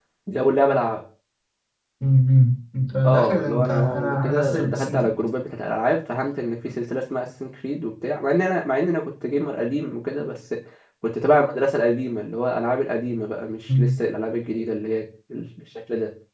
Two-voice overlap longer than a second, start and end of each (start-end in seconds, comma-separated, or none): 3.0-5.2